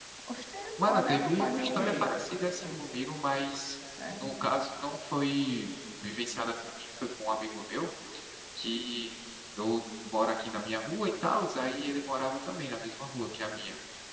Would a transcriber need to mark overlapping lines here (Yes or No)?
Yes